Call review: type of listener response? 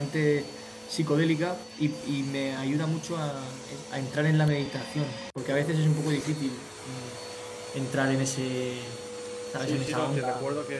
taking over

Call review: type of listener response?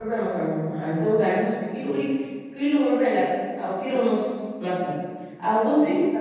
listening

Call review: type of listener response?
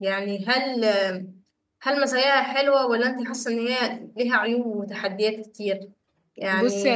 listening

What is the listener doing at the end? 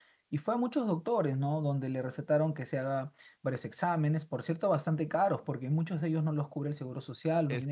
taking over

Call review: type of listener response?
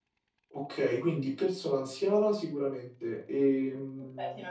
taking over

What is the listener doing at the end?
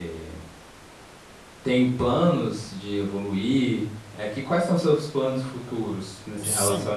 taking over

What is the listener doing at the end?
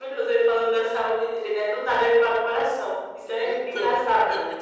taking over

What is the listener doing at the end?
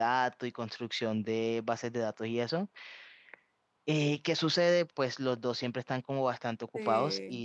listening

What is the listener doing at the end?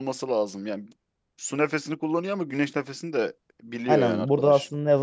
taking over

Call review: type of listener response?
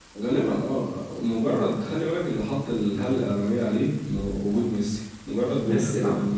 listening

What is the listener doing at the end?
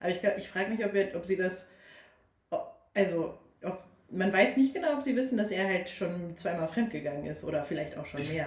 taking over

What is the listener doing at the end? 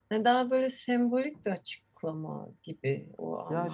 taking over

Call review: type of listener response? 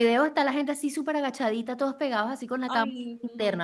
listening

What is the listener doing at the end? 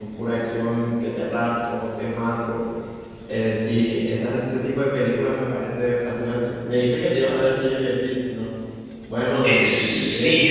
taking over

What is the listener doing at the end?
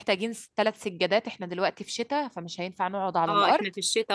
taking over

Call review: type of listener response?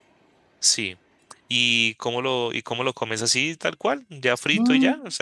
taking over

